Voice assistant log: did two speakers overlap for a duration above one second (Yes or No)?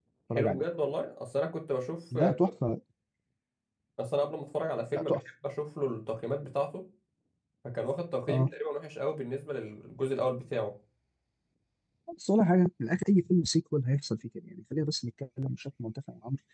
No